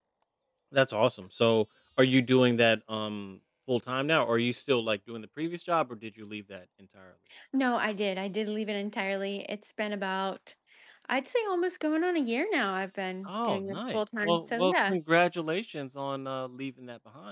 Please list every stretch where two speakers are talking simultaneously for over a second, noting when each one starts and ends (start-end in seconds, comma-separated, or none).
13.3-15.0